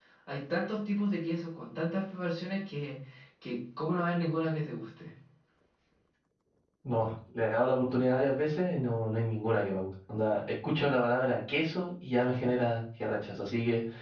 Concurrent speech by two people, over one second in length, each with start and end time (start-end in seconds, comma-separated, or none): none